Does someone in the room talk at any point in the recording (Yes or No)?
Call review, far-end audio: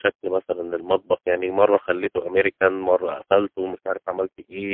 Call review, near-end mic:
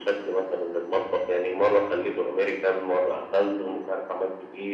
No